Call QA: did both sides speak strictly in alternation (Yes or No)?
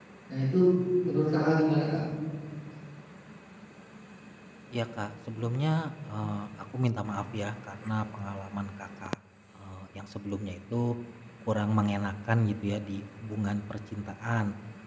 Yes